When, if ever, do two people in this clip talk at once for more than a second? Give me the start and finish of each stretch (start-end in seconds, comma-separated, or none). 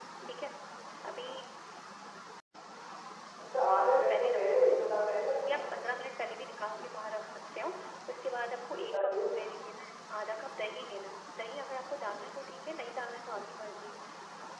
3.7-4.9